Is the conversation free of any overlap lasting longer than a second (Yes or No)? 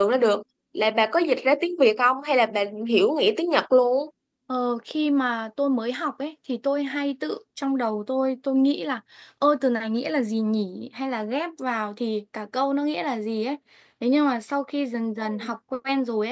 Yes